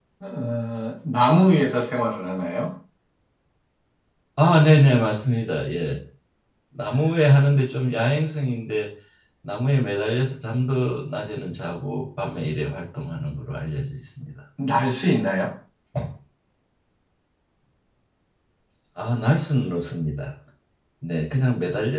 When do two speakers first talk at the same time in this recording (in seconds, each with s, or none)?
none